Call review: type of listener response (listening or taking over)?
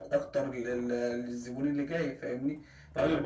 taking over